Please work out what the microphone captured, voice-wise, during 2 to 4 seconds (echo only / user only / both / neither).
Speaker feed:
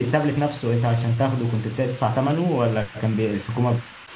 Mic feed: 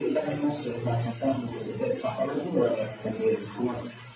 echo only